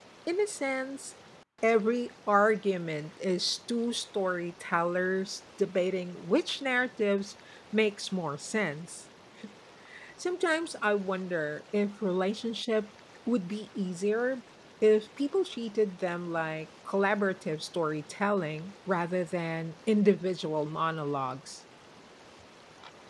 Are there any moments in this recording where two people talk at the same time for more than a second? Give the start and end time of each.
none

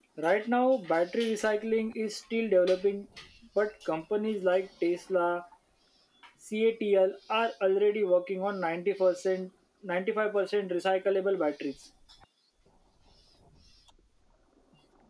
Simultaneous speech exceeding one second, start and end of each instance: none

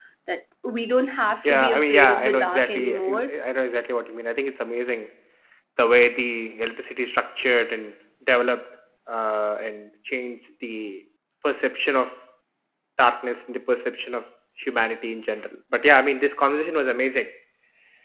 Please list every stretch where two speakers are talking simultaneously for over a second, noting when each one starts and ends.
1.4-3.3

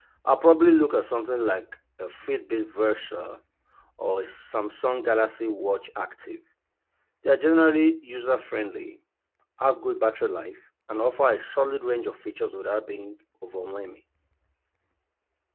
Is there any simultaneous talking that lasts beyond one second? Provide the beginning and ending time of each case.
none

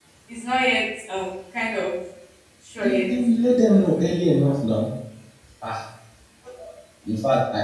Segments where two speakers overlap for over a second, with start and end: none

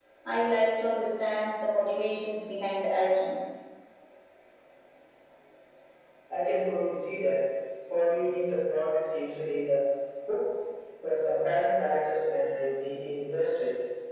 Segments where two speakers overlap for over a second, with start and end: none

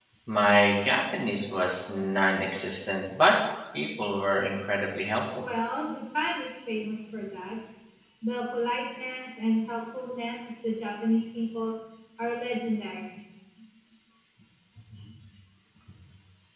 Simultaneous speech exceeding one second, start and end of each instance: none

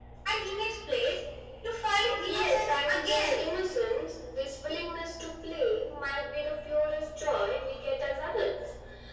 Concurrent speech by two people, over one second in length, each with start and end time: 2.3-3.5

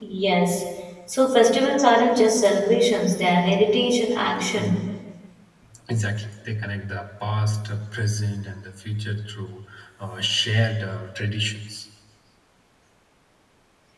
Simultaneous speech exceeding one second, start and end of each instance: none

